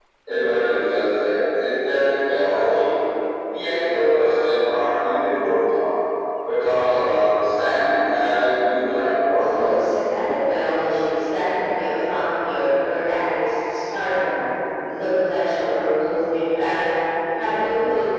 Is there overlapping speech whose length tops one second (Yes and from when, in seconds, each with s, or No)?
No